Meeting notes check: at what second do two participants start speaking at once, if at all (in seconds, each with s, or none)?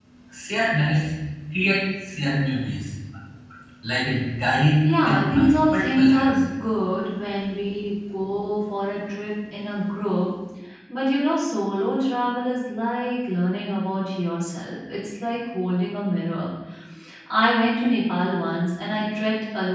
4.8 s